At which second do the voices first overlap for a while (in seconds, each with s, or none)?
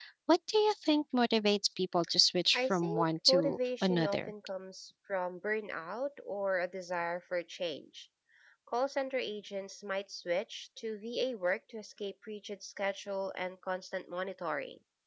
2.5 s